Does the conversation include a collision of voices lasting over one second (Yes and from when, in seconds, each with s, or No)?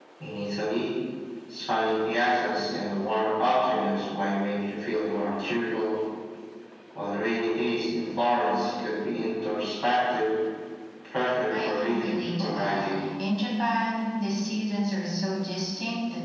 Yes, from 11.6 s